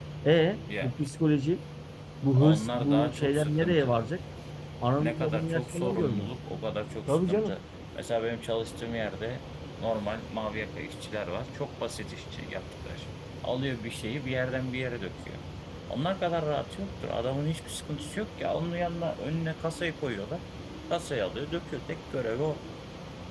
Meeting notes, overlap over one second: present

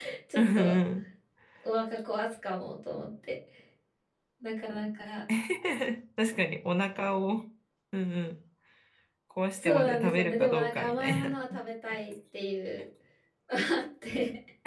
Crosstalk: present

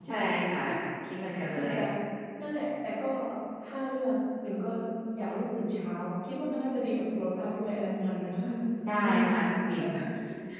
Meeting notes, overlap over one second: none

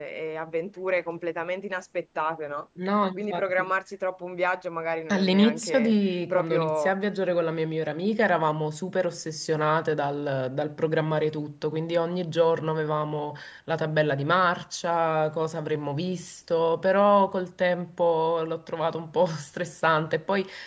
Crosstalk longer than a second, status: present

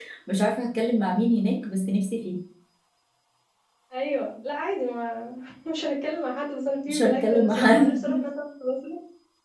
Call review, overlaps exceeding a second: present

